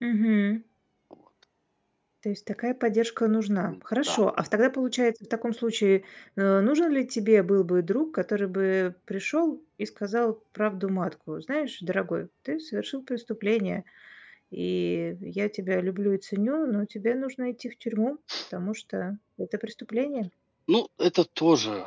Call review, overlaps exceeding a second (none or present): none